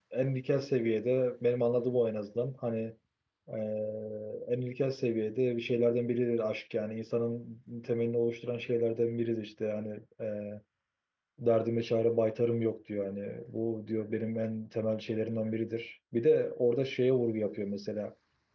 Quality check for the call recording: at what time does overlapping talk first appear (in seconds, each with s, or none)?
none